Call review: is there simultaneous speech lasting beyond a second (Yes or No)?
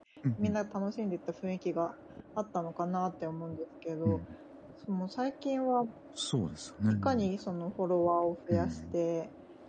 No